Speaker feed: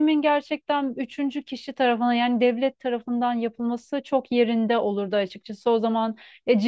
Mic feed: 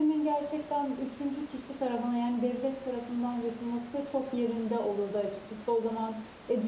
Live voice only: none

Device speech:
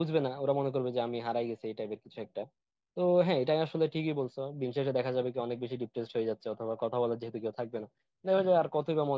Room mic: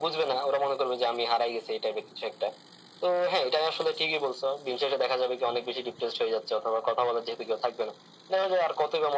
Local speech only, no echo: none

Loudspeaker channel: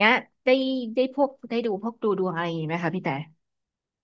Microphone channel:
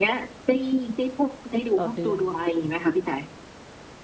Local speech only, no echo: ต่อเดือน

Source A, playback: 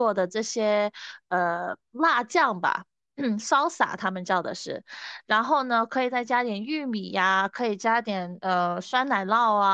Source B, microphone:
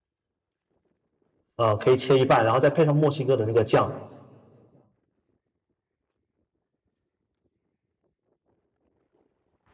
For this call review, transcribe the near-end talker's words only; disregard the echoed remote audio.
呃可以切一半，然后再配上墨西哥的那个酱，

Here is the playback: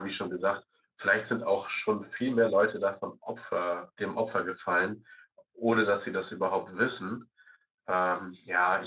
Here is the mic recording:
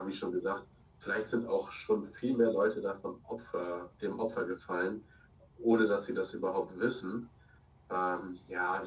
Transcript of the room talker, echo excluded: none

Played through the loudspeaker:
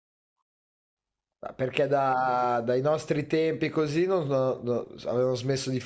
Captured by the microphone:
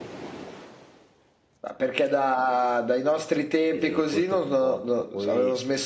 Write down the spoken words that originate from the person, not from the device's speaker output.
e questo comporta che poi...

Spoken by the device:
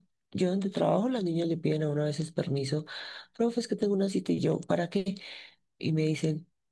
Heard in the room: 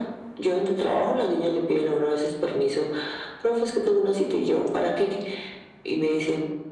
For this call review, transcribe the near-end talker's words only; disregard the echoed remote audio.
none

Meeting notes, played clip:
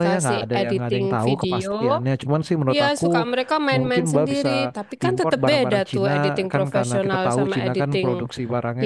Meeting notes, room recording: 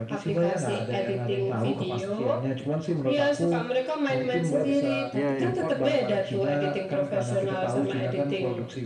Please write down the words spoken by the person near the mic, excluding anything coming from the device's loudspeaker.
iya, iya,

